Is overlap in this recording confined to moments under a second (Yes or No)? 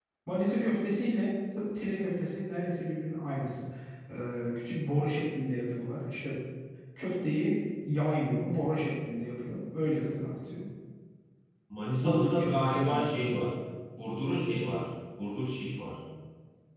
No